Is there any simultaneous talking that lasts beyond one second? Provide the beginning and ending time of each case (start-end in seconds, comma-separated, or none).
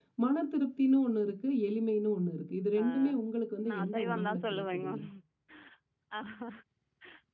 3.7-4.9